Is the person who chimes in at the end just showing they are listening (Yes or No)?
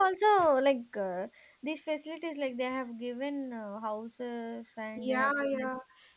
No